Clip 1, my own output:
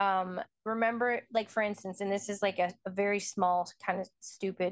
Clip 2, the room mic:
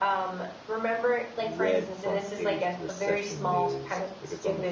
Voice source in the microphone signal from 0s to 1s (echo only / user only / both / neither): echo only